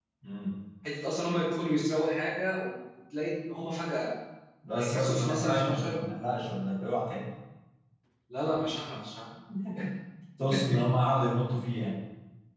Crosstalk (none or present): present